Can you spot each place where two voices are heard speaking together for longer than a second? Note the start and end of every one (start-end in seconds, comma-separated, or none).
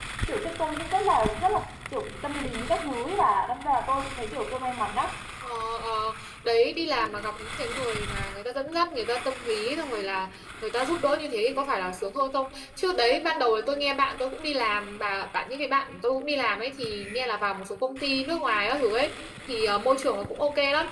none